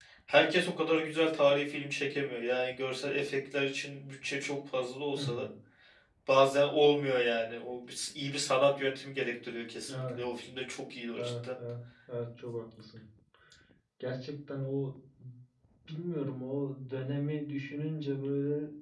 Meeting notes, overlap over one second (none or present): none